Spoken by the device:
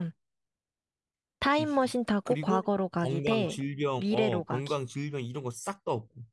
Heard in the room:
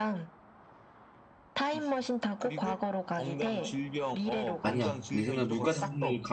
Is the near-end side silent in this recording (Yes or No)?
No